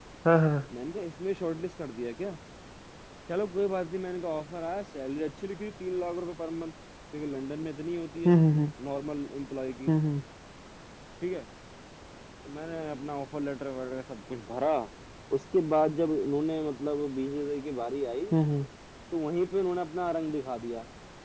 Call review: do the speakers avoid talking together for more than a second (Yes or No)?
Yes